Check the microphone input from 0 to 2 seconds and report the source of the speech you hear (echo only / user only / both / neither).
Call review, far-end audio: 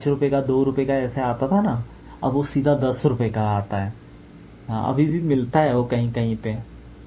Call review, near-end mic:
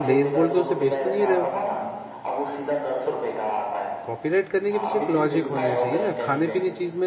both